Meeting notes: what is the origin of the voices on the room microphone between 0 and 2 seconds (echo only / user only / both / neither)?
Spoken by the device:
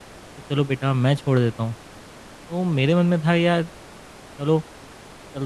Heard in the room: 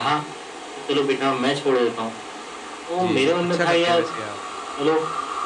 echo only